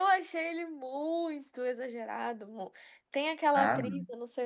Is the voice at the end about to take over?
No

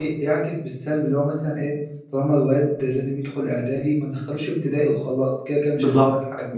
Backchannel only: No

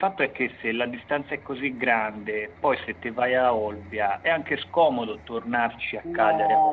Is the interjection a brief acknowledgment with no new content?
No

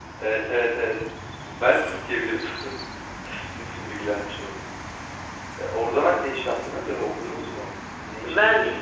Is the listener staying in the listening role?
No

